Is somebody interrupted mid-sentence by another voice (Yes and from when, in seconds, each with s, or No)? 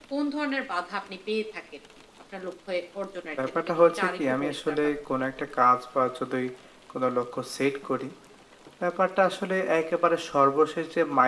Yes, from 3.4 s